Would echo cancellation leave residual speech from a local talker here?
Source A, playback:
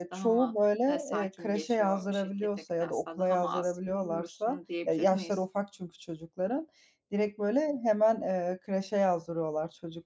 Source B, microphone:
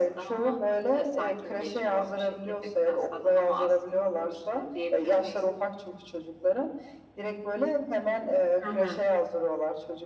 Yes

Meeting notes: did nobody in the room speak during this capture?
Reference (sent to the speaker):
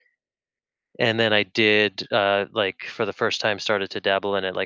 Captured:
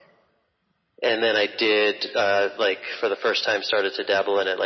Yes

